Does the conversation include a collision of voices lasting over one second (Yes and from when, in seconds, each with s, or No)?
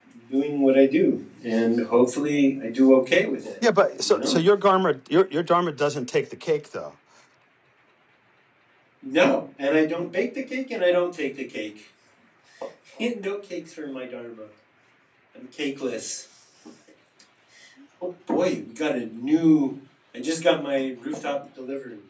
No